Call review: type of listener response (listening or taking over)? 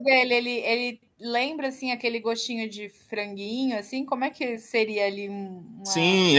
taking over